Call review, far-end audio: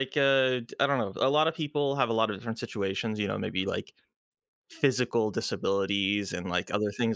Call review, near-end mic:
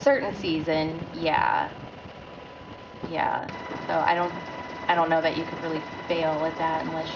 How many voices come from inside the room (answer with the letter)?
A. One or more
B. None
A